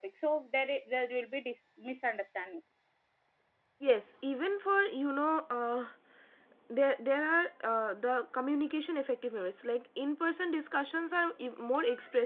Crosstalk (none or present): none